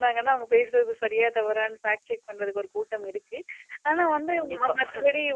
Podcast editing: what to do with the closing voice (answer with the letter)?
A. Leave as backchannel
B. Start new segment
A